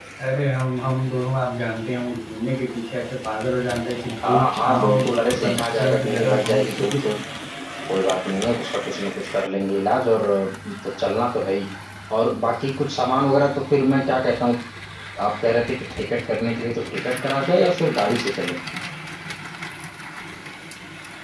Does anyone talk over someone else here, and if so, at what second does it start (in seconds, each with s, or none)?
4.2 s